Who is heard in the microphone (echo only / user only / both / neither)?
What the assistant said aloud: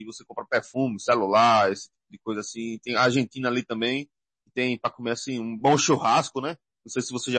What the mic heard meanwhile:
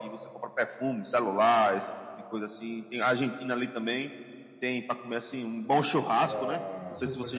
both